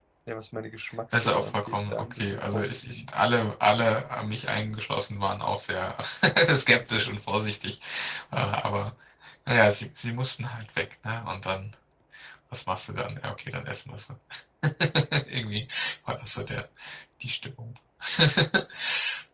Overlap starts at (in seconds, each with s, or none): 1.1 s